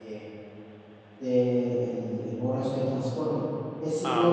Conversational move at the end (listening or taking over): listening